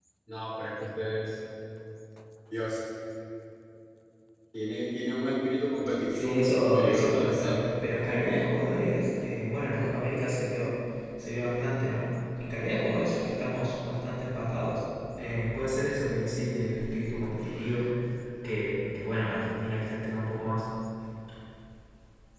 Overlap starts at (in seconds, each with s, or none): 5.8 s